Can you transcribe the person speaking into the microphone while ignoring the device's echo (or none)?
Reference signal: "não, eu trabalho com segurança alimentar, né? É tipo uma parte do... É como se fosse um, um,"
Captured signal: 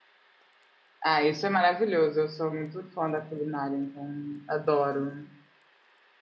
Ah, isso é maravilhoso. Eu sou muito fã da culinária, então adoro.